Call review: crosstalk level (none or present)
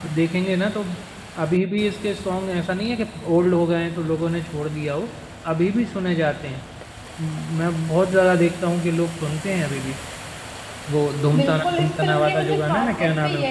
present